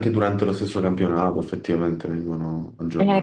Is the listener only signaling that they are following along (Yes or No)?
No